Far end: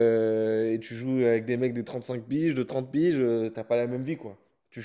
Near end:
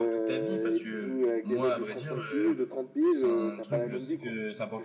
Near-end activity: present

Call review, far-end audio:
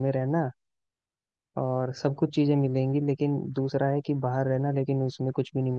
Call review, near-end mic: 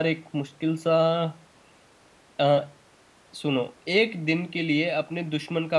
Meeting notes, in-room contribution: present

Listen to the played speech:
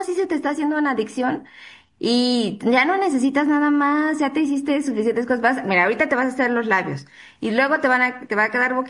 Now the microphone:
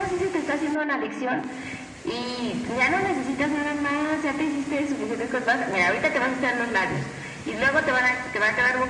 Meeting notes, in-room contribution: none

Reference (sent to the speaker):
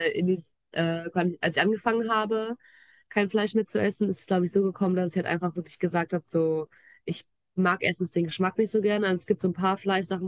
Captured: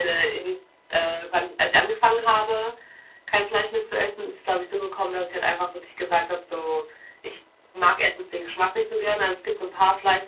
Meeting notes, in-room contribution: none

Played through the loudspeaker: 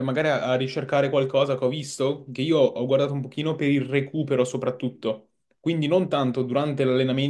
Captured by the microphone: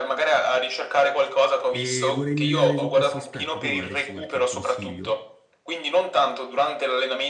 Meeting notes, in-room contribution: present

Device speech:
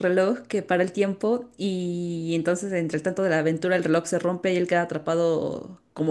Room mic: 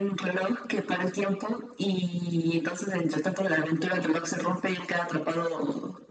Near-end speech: none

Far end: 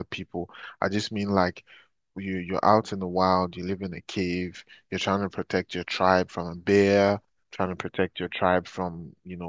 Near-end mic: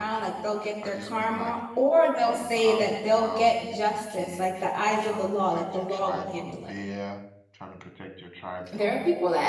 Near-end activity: present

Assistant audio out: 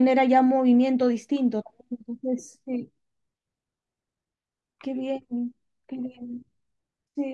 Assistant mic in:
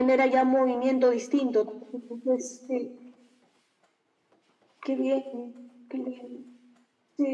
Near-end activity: none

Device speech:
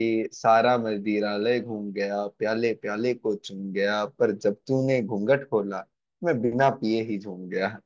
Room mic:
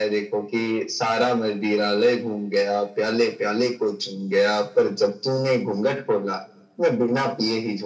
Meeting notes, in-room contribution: none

